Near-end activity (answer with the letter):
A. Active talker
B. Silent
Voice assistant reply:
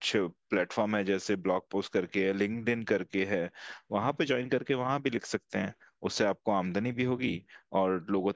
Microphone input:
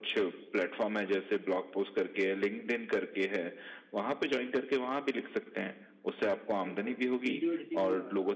A